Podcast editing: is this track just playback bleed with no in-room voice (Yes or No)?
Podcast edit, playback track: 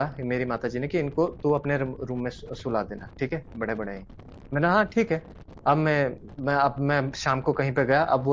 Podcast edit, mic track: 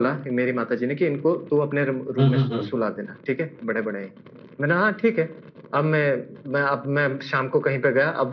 No